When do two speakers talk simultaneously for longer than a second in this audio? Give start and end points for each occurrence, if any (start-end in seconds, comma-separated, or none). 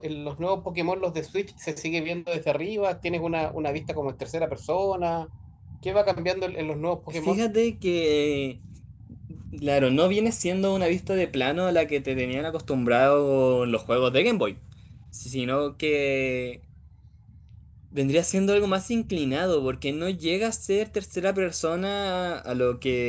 none